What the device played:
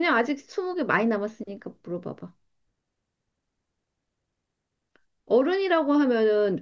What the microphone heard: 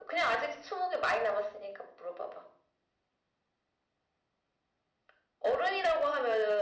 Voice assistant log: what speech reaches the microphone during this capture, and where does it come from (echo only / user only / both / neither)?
echo only